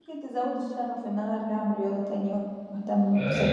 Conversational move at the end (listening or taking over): taking over